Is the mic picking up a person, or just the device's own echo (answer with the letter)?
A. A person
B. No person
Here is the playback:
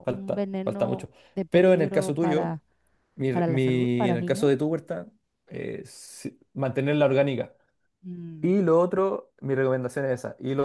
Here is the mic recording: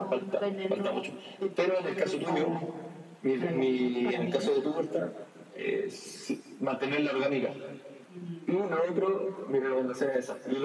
B